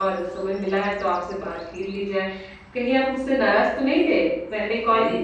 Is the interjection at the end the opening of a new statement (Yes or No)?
Yes